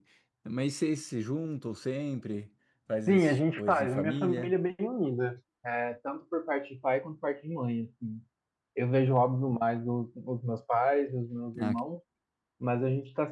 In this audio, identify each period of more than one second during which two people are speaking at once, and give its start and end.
3.1-4.5

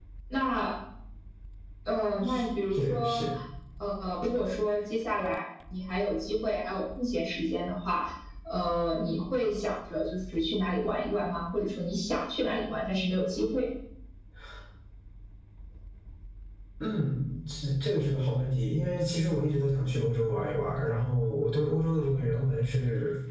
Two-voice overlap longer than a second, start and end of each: none

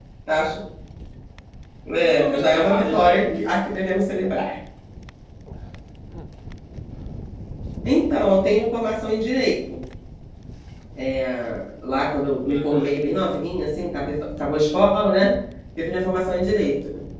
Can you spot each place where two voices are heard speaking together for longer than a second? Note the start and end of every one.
2.0-3.4

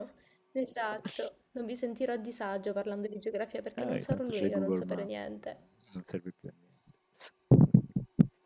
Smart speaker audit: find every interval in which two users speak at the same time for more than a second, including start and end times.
3.8-5.1

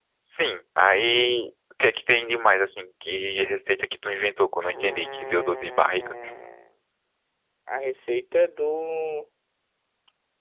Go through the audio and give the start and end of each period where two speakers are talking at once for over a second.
4.7-6.1

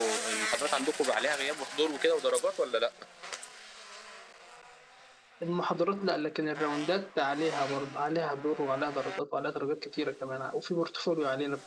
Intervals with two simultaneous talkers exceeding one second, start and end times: none

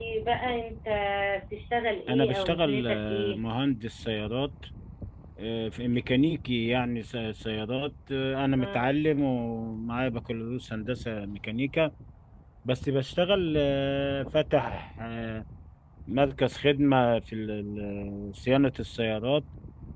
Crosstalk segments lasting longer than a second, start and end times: 2.1-3.4

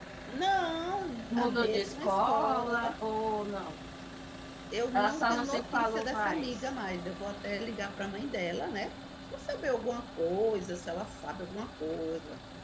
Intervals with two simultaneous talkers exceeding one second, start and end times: 1.3-3.0, 4.9-6.7

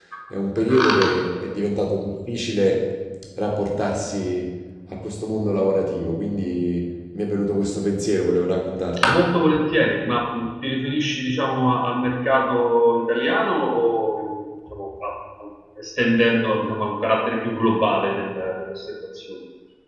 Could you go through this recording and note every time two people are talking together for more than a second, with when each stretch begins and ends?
none

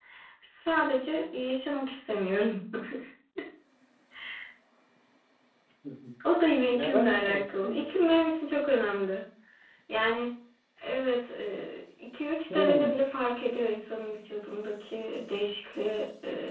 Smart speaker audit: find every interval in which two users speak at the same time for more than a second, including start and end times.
6.7-8.1

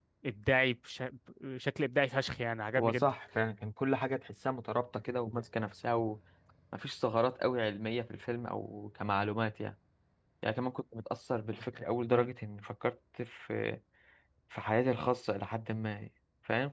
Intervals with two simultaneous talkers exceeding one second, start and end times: none

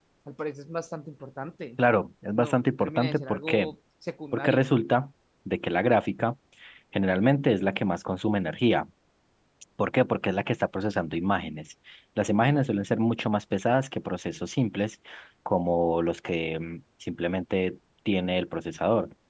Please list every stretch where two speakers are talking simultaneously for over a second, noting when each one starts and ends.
2.4-3.7

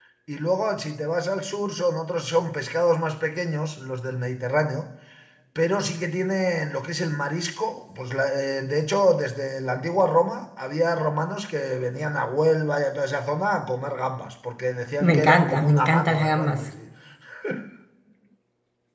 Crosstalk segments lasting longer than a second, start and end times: 15.0-16.6

